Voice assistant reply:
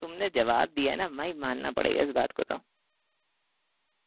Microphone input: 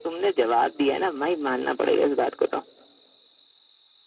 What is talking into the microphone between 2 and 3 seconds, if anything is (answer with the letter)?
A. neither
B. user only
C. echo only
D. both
C